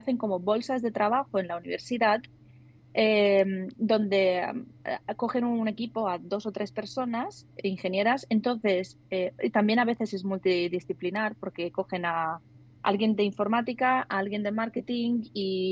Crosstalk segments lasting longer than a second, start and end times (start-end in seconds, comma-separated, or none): none